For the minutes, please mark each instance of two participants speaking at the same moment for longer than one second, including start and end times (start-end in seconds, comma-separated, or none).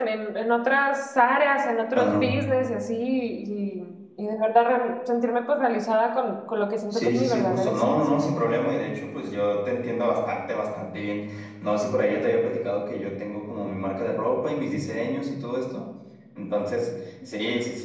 6.9-8.2